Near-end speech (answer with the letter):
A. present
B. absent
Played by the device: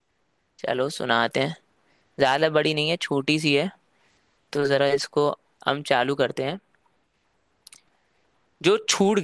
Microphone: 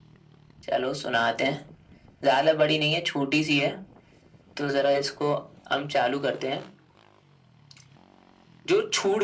B